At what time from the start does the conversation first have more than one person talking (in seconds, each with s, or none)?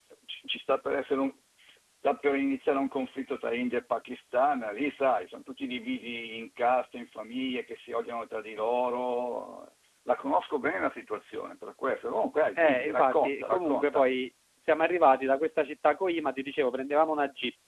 12.6 s